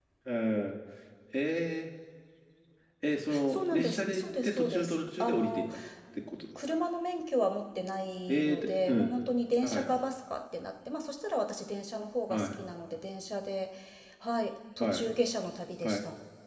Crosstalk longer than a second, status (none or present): present